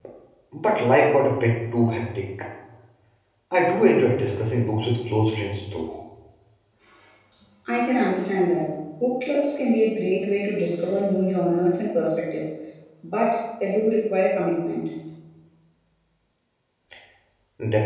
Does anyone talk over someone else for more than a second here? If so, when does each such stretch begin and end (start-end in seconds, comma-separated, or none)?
none